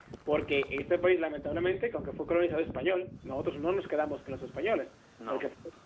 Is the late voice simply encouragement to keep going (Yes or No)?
Yes